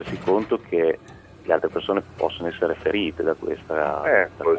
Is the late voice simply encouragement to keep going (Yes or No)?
No